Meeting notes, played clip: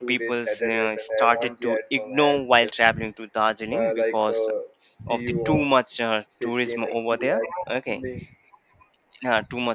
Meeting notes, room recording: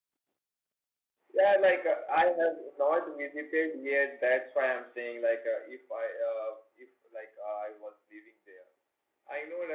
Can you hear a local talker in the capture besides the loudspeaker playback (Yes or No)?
Yes